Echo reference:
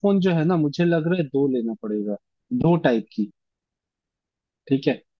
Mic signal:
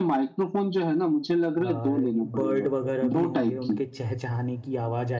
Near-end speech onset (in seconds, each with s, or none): 1.6 s